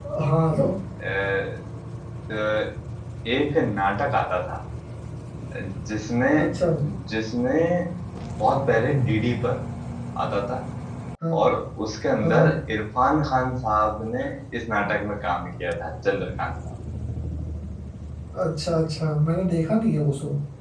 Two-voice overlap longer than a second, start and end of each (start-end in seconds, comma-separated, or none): none